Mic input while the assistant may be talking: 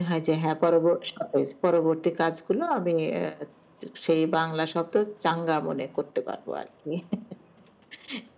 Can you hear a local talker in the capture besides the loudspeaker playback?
No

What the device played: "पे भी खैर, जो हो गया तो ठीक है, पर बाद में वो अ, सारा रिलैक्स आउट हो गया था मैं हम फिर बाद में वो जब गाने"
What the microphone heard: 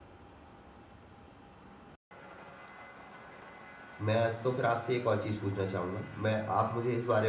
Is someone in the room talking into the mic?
Yes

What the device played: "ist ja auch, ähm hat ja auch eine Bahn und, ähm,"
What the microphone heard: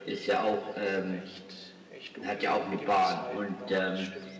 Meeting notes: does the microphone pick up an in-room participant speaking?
Yes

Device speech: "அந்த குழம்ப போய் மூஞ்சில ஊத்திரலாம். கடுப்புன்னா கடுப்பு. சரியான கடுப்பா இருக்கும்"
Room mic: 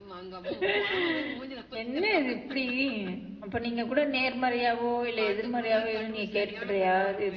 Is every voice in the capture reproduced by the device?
No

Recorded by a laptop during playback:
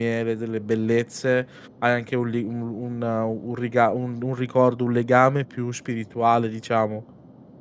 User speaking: Yes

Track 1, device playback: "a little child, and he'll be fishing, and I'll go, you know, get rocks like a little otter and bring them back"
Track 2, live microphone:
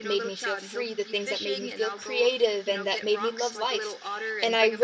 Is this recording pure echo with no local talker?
No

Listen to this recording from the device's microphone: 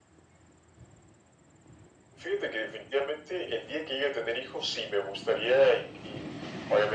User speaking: No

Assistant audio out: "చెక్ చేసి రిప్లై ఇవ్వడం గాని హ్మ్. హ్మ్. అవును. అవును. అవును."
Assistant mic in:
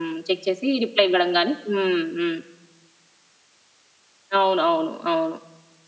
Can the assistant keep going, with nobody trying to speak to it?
Yes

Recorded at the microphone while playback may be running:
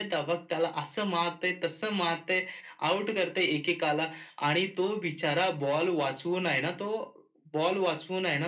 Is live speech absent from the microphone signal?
Yes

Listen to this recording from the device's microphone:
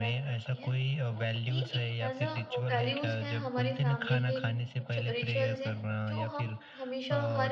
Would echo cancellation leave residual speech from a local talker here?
Yes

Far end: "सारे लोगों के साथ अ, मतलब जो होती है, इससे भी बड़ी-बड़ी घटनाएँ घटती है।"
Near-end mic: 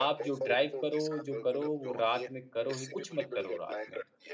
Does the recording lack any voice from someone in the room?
No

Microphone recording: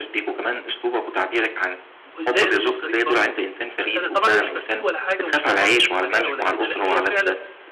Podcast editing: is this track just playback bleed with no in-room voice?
No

